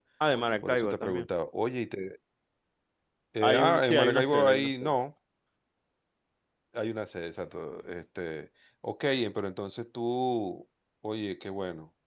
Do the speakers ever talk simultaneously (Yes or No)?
Yes